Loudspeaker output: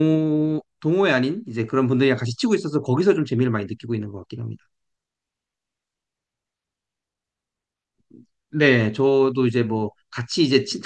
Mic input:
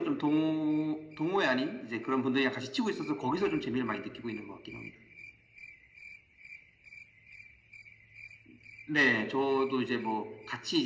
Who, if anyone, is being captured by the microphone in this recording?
echo only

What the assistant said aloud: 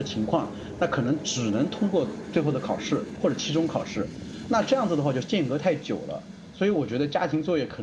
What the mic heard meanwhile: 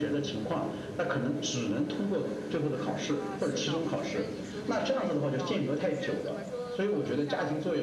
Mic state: both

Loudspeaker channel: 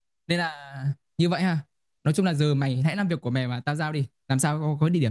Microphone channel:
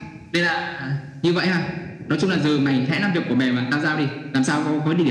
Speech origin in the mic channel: echo only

